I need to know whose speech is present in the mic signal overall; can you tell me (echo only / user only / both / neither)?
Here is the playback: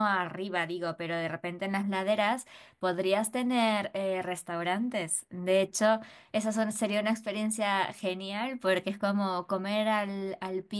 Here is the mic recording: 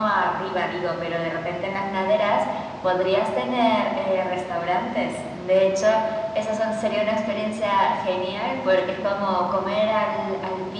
echo only